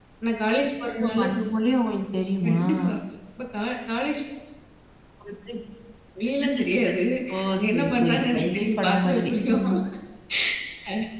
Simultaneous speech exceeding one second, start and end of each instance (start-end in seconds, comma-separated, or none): 7.5-9.6